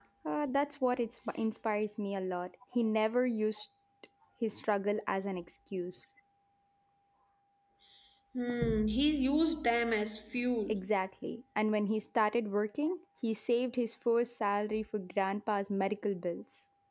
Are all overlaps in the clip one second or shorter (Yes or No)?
Yes